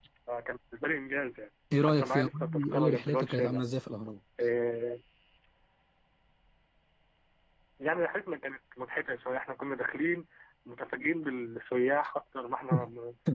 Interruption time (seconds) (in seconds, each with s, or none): 1.7 s